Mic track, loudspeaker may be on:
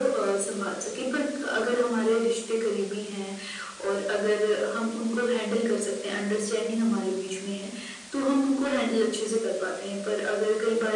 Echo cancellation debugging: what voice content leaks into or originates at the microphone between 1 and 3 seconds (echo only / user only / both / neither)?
echo only